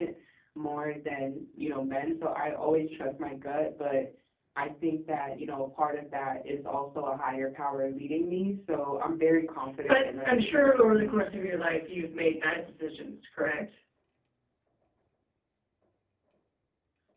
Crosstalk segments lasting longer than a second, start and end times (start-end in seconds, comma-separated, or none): 9.9-11.2